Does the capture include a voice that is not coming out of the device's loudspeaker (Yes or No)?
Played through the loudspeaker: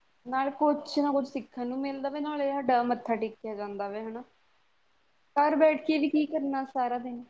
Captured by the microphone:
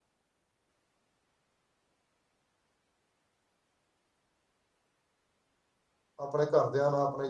Yes